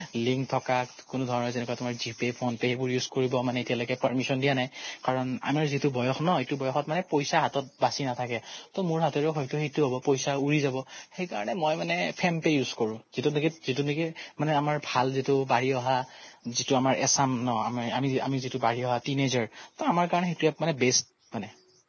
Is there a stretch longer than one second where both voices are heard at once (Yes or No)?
No